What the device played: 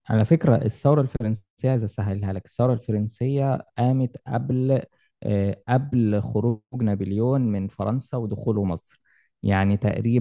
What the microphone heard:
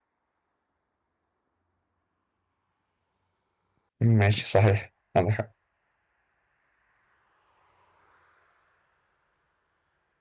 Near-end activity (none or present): present